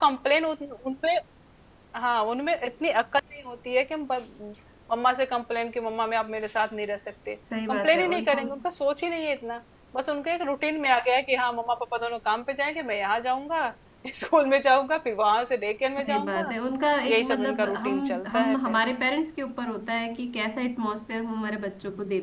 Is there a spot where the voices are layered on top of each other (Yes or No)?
Yes